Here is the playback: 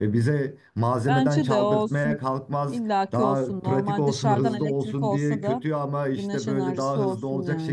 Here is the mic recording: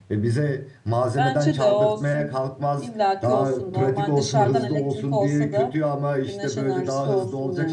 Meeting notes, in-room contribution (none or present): none